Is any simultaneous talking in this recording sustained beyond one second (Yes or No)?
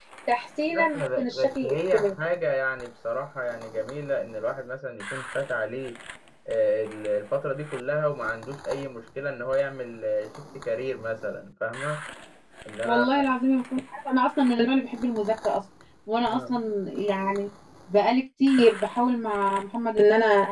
Yes